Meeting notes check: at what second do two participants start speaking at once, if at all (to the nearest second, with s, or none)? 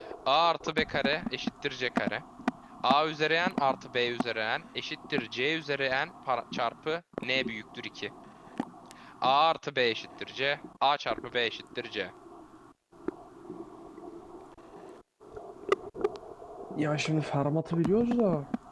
none